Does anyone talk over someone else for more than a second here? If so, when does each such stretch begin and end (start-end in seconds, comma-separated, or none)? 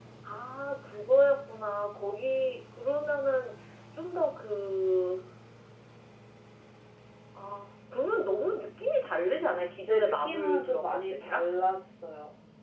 9.9-11.4